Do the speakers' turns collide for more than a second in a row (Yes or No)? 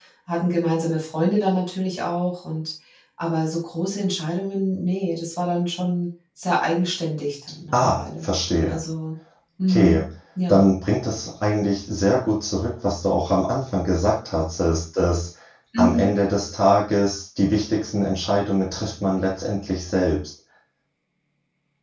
No